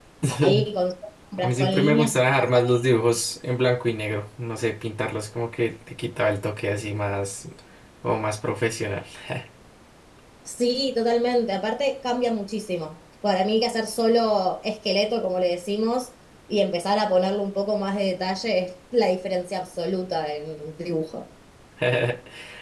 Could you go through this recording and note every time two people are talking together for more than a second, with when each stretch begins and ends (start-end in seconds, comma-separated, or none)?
1.4-2.8